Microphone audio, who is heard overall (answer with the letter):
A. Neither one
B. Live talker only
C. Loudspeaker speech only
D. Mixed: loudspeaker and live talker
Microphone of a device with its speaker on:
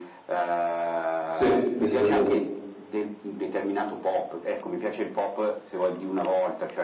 D